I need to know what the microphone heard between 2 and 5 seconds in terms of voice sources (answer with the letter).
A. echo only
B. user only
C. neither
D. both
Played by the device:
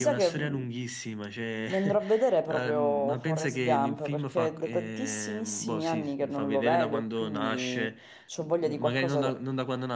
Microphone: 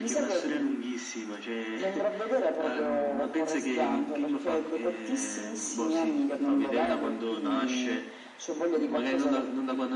A